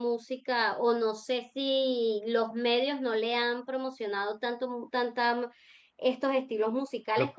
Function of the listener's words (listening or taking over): listening